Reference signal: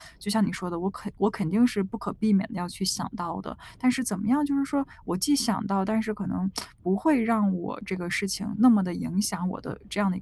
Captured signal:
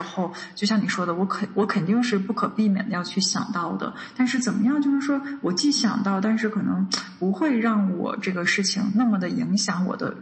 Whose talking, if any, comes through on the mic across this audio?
echo only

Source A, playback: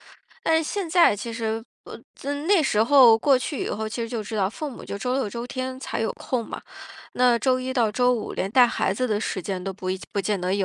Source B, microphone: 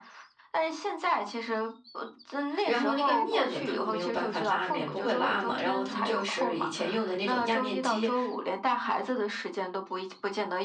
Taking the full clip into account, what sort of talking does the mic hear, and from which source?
both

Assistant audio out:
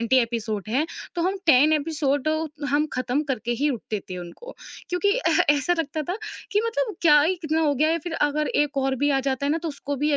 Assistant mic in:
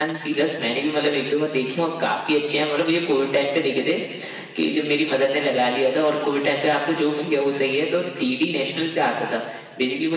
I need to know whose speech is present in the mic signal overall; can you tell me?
user only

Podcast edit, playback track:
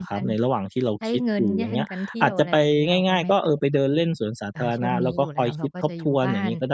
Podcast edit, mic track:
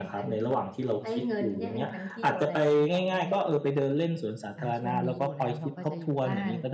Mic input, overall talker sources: echo only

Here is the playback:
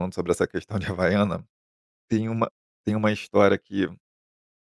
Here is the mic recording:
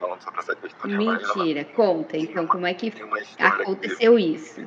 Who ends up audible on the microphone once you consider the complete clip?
both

